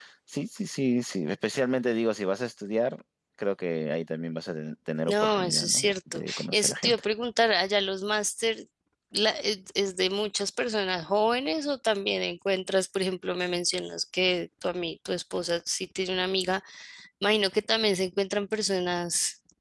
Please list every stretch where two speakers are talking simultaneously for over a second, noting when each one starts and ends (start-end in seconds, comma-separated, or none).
5.1-7.0